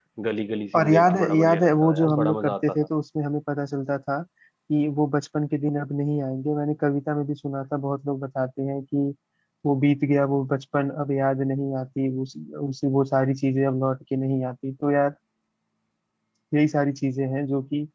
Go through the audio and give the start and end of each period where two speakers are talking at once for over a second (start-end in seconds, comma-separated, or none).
0.8-2.9